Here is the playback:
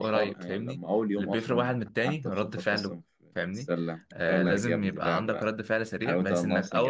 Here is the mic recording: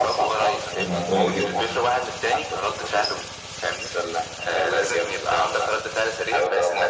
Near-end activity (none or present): present